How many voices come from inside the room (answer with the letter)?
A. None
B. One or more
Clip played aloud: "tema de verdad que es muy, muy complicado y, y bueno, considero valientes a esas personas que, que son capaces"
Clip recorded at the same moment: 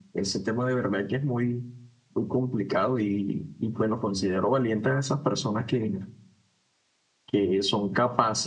A